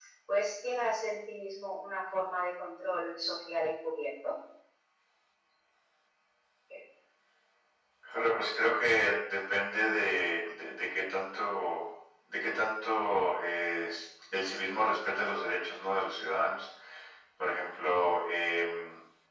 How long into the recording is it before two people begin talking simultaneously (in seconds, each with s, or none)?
none